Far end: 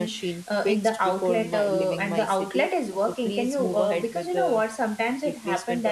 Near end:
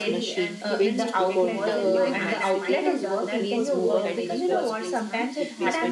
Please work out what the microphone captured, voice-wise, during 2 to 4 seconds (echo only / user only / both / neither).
both